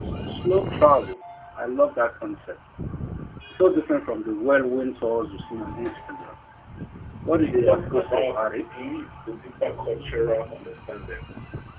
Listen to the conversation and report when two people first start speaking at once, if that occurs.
7 s

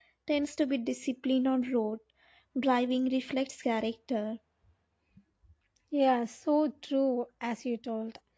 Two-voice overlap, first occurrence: none

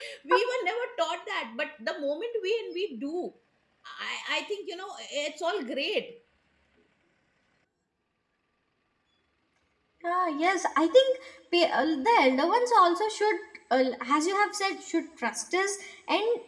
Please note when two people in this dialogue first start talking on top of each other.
none

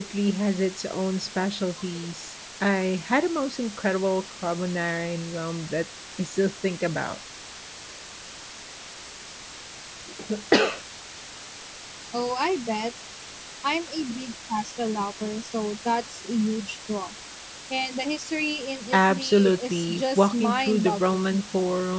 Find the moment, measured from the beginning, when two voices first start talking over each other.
19 s

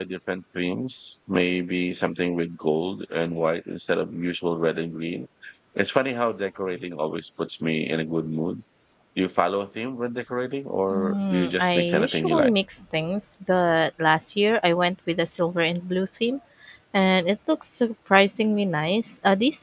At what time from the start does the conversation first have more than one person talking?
11 s

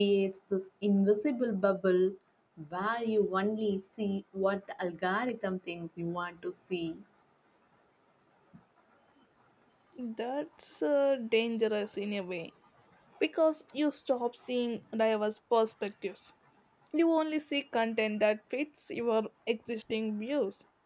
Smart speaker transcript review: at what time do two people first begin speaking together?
none

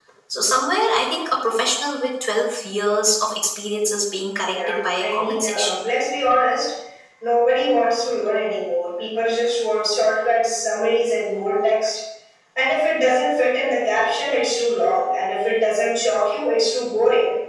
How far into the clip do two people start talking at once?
4 s

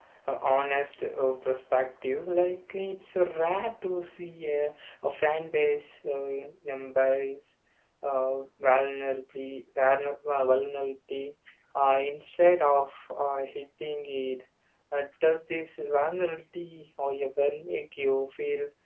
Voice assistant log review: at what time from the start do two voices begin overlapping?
none

